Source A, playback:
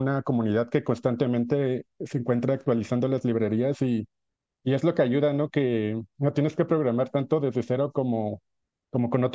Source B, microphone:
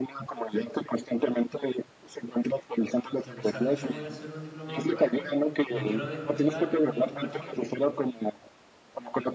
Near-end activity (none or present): present